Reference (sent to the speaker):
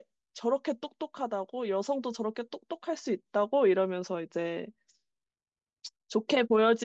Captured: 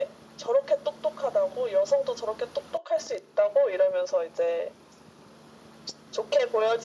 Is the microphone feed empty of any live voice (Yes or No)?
Yes